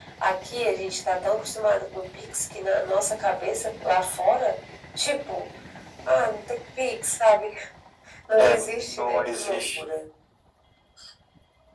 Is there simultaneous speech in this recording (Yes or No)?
Yes